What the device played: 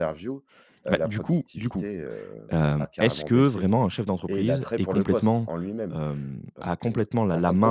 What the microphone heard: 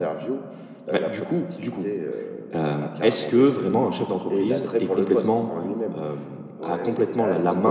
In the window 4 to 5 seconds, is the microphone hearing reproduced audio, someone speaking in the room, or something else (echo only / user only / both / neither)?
echo only